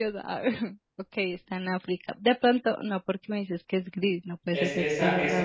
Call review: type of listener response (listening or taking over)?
taking over